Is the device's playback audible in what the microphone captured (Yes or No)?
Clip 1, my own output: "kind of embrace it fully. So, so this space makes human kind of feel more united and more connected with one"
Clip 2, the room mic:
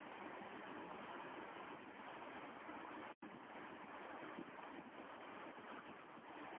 No